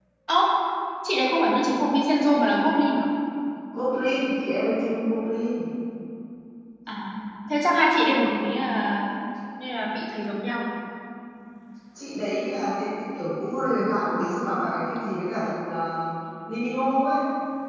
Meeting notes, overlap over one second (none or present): none